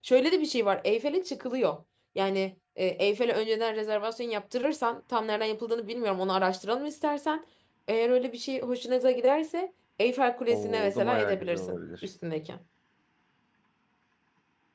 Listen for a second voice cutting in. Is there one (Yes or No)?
Yes